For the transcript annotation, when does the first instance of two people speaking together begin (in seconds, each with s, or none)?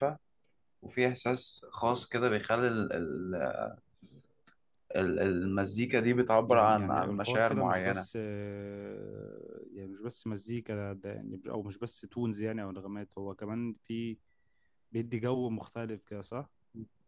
6.5 s